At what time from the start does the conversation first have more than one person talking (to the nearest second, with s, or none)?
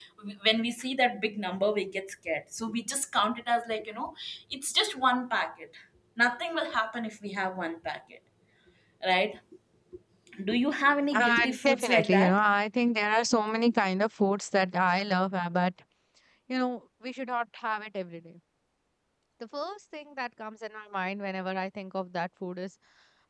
11 s